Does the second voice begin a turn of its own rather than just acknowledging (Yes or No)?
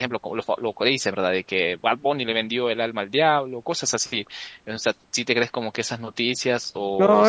Yes